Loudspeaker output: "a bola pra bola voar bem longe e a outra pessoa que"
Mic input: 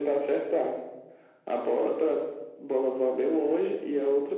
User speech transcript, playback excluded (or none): none